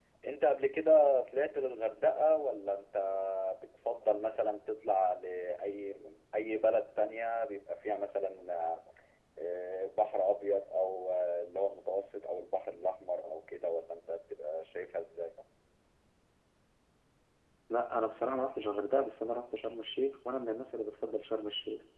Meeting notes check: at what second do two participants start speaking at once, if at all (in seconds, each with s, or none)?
none